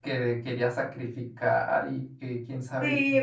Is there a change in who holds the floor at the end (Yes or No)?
Yes